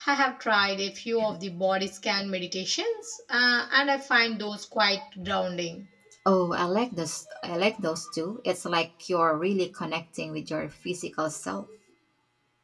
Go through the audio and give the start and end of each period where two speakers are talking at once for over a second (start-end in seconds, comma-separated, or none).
none